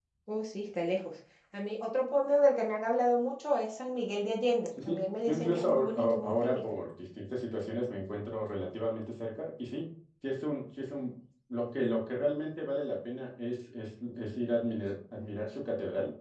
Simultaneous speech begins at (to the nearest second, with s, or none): 5 s